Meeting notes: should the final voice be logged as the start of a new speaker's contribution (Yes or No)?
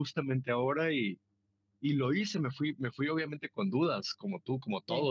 No